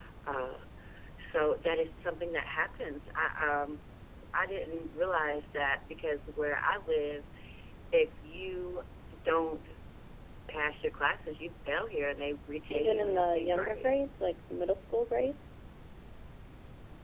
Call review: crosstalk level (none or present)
present